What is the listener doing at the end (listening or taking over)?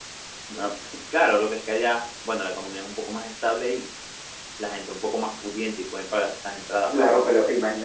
taking over